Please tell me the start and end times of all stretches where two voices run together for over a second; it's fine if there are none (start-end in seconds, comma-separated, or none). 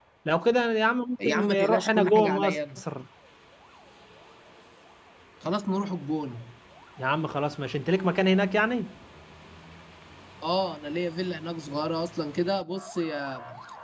1.2-2.8